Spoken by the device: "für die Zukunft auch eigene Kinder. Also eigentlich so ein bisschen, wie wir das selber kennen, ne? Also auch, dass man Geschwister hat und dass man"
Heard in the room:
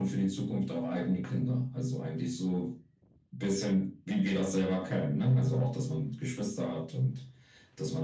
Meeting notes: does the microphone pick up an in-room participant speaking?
No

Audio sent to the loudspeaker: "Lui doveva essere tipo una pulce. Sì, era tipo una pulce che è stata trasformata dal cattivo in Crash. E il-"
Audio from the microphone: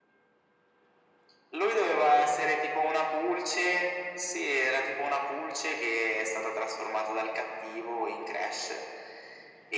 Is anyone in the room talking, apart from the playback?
No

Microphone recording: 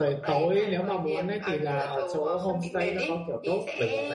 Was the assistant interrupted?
Yes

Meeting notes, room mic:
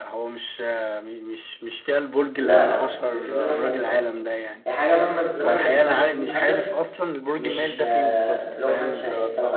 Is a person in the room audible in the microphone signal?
Yes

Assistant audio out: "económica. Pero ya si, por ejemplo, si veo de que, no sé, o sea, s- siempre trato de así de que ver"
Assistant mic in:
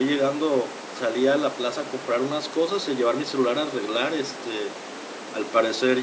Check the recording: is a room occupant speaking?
Yes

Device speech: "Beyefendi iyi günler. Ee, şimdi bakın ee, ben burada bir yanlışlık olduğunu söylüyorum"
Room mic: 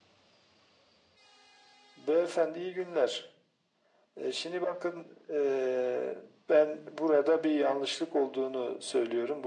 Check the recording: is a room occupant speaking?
No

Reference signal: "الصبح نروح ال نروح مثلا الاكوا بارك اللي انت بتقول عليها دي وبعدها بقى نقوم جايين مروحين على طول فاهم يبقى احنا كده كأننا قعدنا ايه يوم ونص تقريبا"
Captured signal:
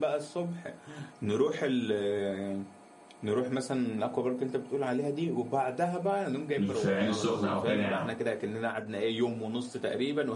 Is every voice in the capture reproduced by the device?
No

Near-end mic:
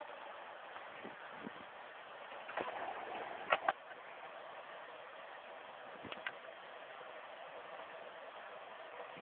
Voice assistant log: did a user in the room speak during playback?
No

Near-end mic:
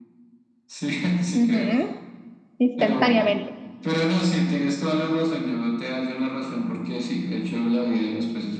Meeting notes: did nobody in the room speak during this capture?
No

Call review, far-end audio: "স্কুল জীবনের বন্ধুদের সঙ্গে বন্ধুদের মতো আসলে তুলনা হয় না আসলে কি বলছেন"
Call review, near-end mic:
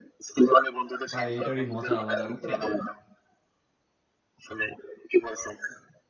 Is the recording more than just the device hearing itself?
Yes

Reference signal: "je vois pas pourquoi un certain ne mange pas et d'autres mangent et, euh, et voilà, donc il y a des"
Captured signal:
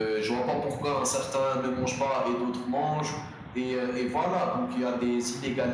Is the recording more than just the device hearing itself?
No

